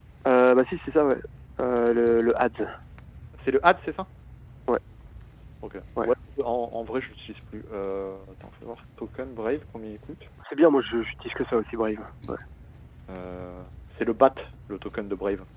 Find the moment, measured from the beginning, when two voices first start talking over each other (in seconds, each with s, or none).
none